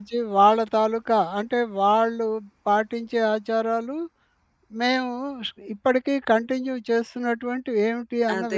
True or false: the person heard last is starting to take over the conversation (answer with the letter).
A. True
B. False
A